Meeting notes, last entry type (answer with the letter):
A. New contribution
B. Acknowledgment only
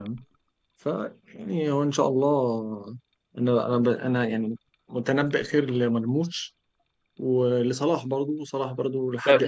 A